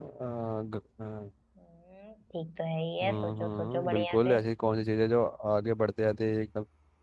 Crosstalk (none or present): present